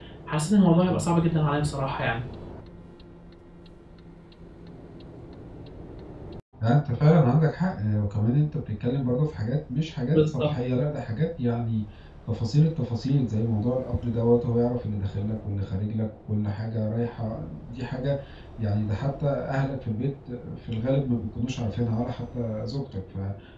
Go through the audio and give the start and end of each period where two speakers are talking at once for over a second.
none

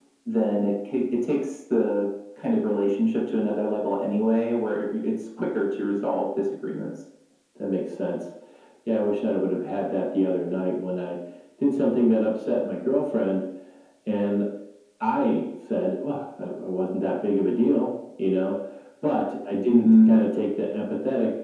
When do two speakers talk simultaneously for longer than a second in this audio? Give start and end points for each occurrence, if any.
none

